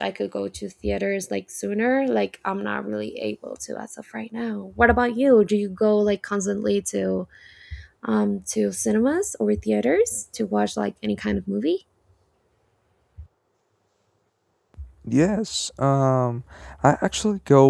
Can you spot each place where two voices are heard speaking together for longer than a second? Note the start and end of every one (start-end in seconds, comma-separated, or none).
none